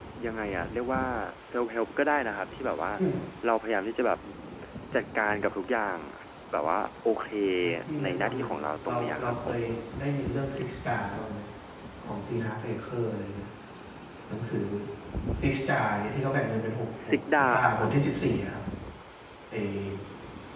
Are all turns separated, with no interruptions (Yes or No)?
No